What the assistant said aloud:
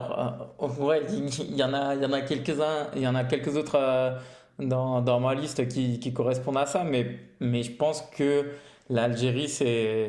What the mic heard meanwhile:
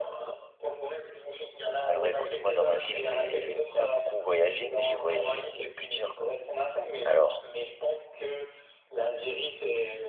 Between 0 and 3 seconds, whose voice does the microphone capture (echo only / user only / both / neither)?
both